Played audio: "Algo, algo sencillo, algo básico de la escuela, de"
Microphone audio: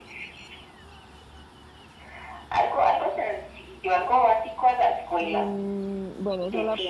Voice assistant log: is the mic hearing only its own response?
No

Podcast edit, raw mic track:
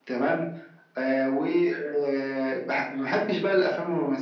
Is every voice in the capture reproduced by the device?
Yes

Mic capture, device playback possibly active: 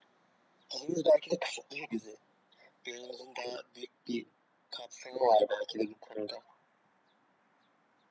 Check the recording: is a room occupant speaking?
No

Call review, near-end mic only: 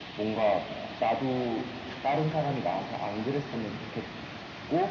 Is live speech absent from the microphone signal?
Yes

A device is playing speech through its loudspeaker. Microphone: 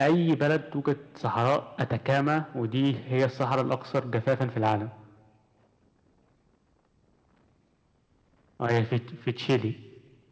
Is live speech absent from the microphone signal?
Yes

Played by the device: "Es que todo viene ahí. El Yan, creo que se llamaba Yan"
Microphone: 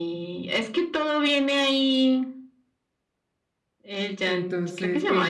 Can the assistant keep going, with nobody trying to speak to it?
No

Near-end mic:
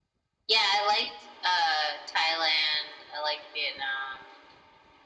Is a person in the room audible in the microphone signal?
No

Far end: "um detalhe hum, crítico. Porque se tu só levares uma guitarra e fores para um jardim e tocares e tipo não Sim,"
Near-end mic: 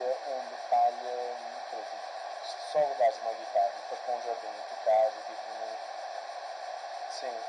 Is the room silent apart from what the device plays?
Yes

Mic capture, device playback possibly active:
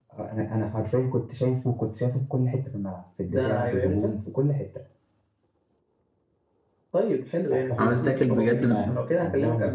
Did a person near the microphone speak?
Yes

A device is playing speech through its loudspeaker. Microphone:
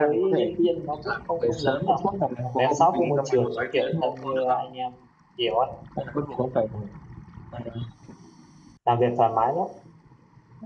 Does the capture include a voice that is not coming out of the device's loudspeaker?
Yes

